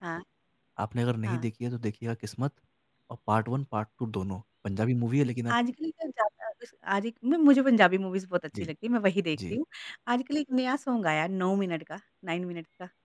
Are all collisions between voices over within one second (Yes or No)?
Yes